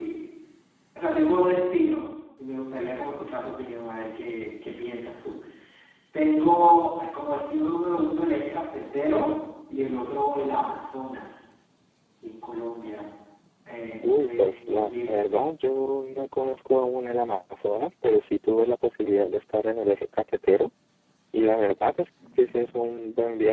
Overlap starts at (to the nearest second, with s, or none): 14 s